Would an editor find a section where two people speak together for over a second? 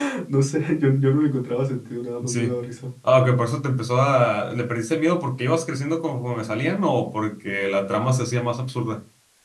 No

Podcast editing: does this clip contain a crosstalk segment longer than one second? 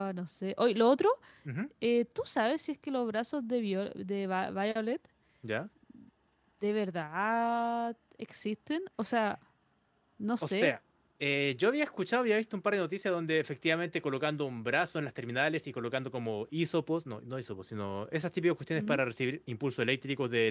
No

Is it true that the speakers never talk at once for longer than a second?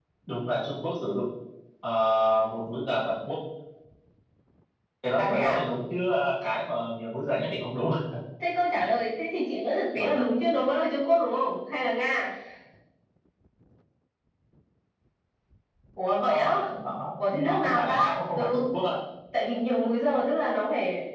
No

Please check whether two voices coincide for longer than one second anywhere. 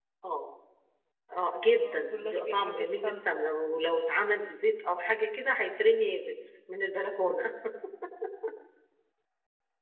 Yes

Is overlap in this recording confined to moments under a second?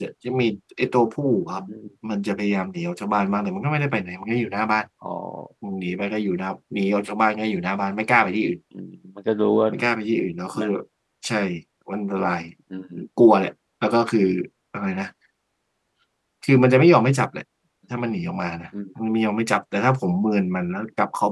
Yes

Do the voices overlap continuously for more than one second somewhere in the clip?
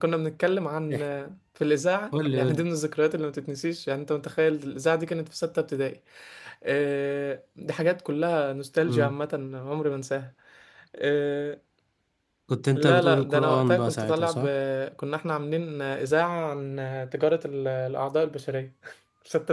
Yes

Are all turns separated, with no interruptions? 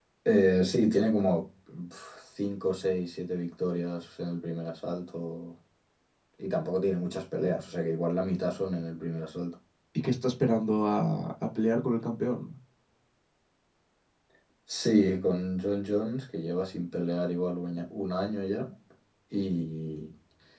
Yes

